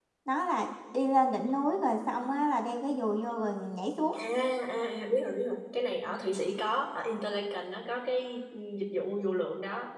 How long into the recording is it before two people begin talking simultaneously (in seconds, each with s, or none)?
none